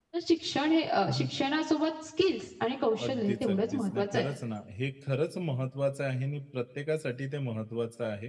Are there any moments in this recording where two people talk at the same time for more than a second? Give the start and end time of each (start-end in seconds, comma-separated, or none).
3.0-4.2